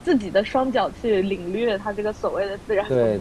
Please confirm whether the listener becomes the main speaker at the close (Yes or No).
Yes